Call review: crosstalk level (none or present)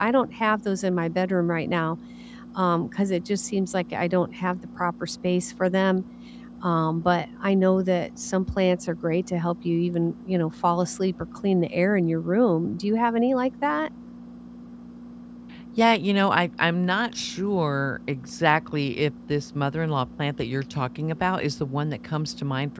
none